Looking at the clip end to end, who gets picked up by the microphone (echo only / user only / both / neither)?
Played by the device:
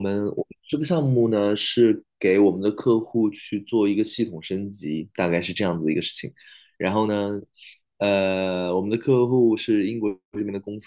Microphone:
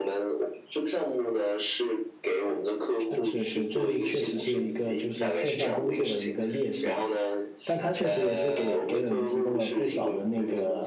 both